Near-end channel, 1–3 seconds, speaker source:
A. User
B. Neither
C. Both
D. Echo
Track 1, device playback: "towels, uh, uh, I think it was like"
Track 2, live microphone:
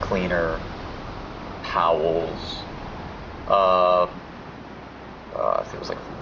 D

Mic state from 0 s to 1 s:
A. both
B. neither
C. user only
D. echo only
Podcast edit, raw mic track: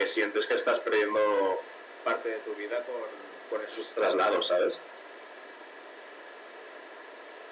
D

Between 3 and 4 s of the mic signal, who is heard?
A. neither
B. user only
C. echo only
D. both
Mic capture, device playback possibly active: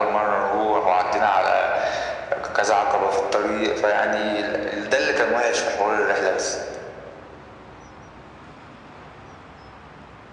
C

